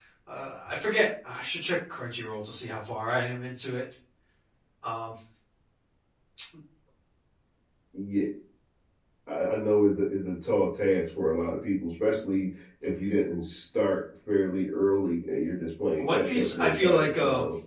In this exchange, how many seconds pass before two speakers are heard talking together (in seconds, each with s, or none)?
16.0 s